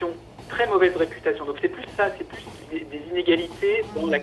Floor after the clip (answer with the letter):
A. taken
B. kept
B